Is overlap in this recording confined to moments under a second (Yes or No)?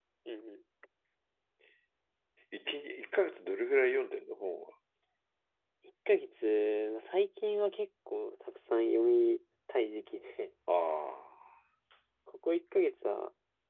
Yes